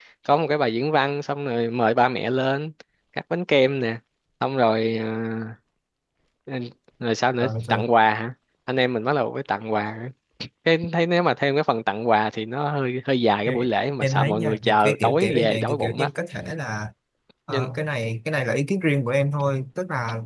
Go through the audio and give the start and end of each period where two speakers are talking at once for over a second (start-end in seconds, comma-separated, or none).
14.0-16.1